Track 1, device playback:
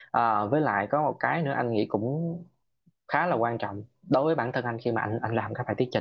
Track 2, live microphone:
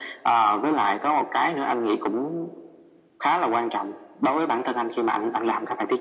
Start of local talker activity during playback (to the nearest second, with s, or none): none